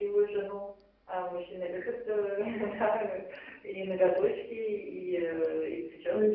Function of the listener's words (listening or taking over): taking over